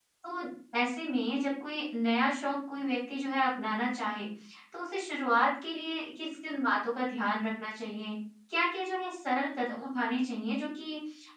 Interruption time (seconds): none

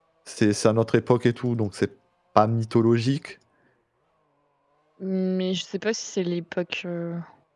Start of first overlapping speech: none

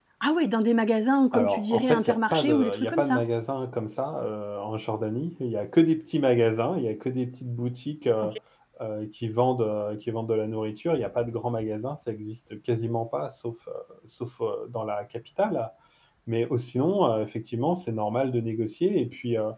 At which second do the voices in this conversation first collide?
1.3 s

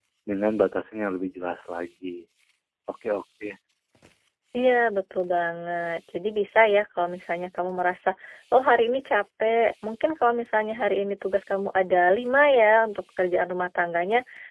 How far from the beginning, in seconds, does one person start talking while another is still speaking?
none

